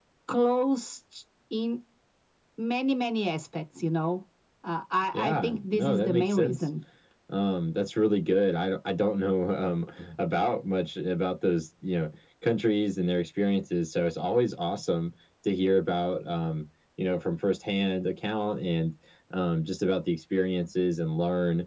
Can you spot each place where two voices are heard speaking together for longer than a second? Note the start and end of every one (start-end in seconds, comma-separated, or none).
5.1-6.6